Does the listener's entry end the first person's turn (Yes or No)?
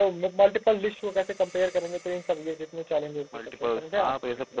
Yes